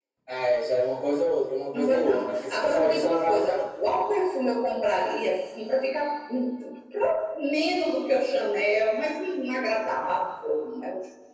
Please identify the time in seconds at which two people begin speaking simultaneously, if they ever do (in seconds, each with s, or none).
1.7 s